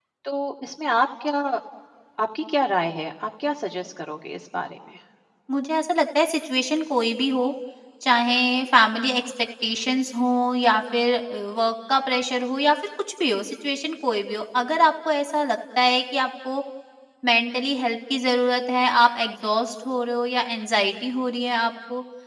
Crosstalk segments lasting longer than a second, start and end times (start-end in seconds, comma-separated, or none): none